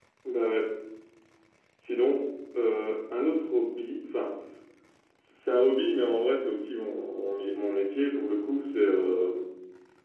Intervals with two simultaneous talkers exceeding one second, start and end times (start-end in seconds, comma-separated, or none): none